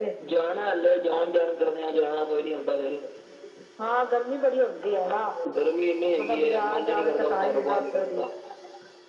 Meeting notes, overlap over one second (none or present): present